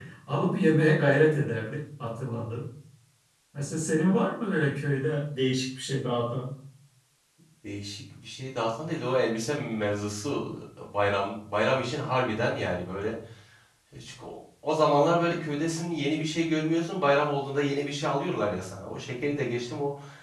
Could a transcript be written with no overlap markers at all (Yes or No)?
Yes